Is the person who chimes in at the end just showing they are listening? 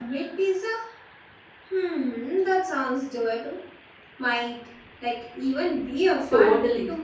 No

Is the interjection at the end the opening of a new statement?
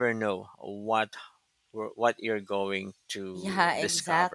Yes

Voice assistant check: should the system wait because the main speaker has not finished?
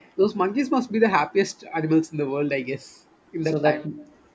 No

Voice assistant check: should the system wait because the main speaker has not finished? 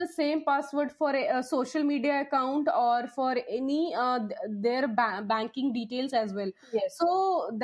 Yes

